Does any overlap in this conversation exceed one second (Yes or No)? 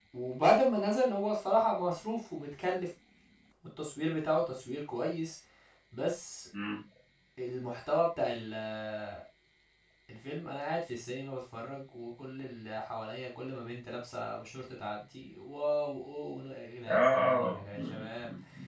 Yes